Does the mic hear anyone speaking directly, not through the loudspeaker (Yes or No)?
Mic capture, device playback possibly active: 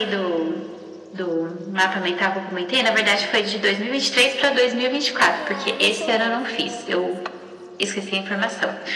Yes